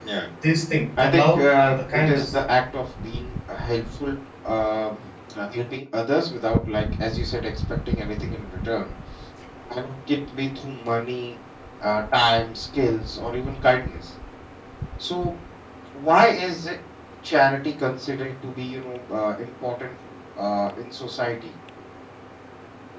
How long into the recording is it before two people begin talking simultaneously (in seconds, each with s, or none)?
1.0 s